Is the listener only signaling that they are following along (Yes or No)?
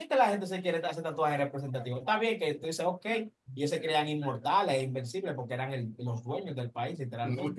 No